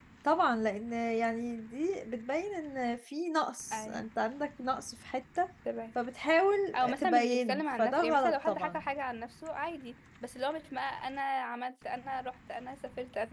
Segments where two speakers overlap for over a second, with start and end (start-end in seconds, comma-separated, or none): 7.0-8.8